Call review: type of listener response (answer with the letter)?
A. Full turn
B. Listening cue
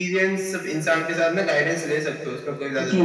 A